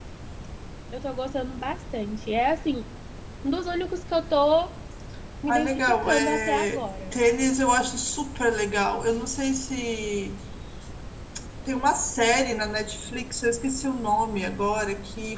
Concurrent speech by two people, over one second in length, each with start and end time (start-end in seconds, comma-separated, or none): 5.5-7.1